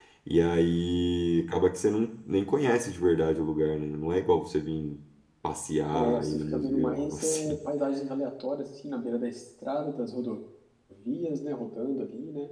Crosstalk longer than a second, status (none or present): present